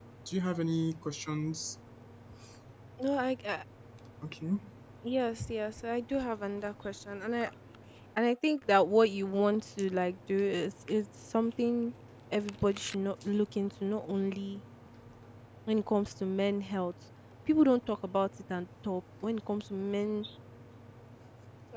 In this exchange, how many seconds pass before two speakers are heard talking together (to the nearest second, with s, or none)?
none